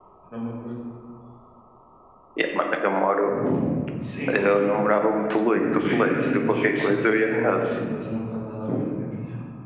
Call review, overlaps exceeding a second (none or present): present